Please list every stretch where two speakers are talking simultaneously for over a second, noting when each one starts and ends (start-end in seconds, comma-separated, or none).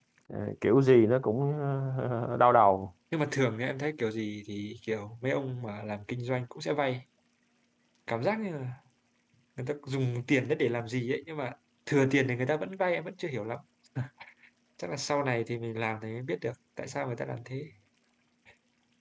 none